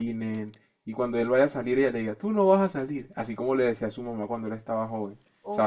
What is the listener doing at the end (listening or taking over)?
taking over